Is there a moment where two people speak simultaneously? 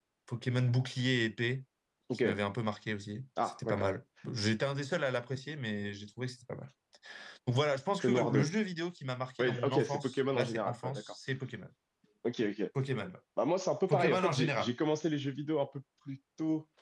Yes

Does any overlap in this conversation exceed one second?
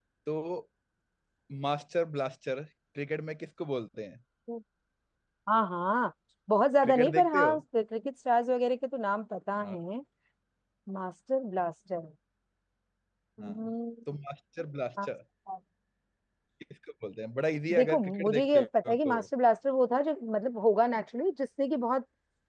Yes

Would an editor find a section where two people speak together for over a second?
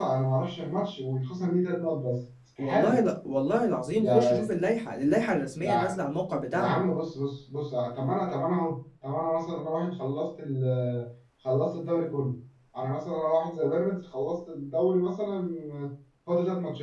No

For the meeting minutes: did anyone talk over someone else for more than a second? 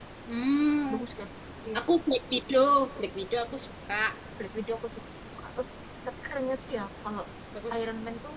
No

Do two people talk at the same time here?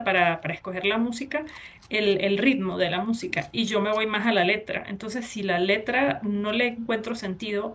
No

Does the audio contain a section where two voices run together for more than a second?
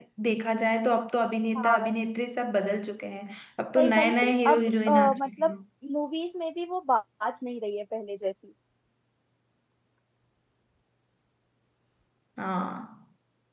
Yes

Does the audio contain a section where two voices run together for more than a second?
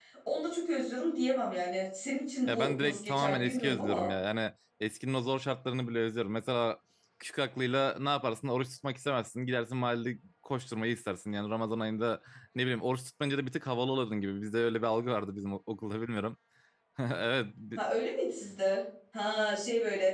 Yes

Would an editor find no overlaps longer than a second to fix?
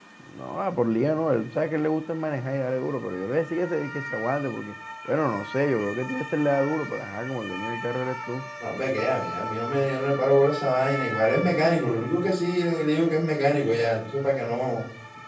Yes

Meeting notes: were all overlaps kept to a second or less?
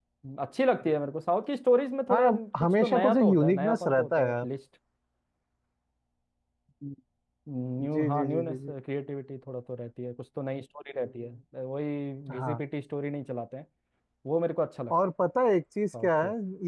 No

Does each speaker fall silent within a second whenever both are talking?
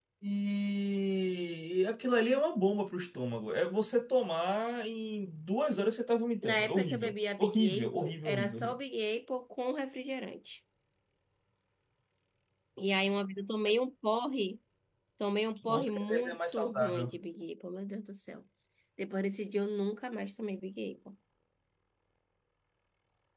No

